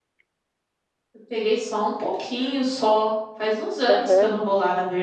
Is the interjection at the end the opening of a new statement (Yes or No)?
No